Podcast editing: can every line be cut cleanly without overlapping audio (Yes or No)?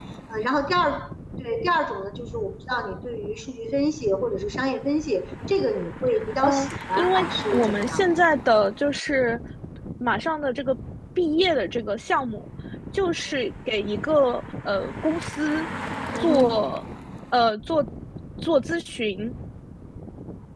No